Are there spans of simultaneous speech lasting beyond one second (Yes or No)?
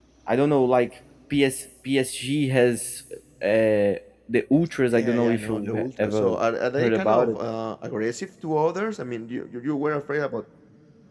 Yes